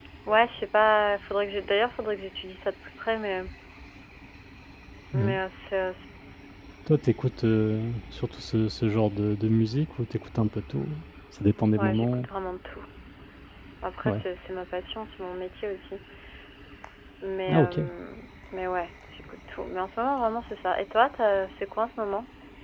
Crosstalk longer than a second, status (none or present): none